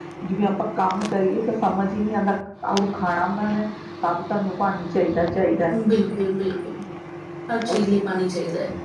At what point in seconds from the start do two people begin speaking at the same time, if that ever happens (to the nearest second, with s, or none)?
none